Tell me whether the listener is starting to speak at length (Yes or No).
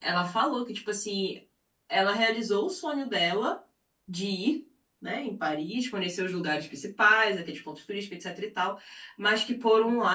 No